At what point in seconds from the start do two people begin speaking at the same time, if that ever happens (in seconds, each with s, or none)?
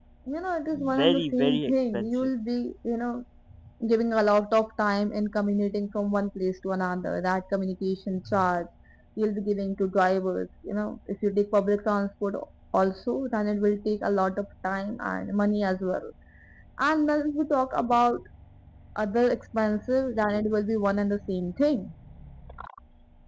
1.0 s